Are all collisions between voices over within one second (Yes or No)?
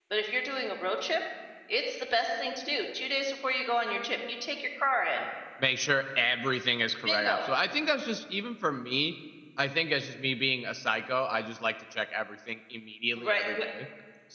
Yes